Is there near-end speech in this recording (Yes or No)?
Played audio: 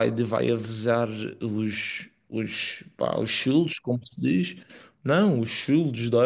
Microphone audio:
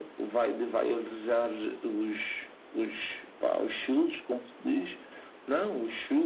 No